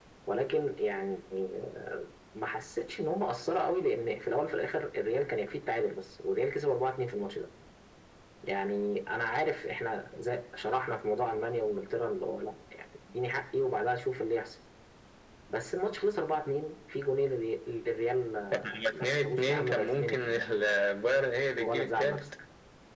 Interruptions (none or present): present